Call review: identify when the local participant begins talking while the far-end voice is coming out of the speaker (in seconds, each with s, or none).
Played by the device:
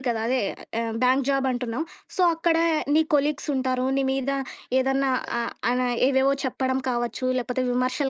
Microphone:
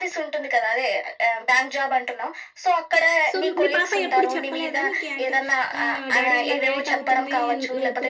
3.3 s